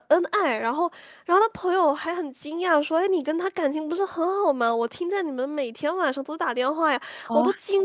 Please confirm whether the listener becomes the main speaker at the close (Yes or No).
No